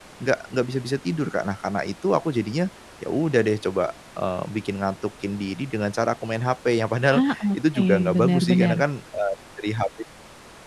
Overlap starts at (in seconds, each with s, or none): 7.1 s